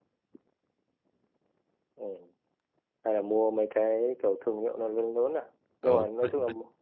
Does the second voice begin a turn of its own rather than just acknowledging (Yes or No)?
Yes